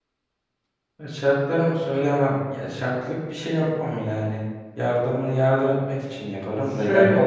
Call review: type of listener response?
listening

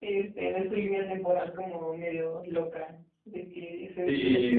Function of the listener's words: taking over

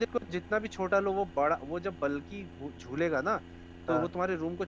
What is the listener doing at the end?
listening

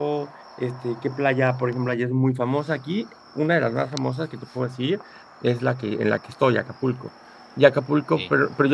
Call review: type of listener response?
listening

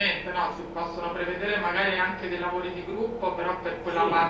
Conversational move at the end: listening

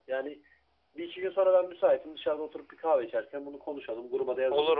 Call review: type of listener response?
listening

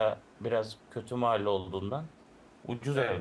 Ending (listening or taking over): taking over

